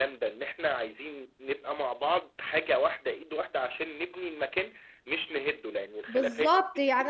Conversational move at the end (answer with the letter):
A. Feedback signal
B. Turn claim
B